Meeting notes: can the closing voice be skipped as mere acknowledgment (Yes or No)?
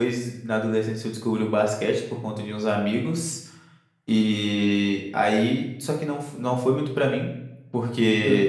Yes